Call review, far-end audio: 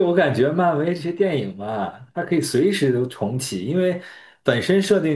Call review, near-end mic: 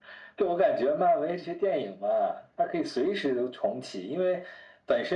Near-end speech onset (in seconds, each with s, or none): none